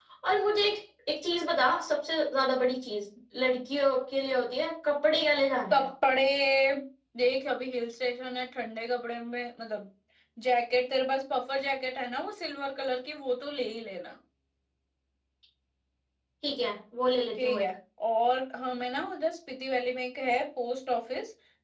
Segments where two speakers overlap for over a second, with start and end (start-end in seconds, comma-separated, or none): none